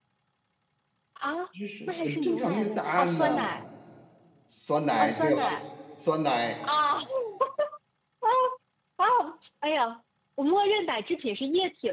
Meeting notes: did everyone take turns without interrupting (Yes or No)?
No